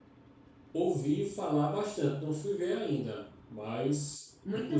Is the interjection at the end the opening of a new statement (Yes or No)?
Yes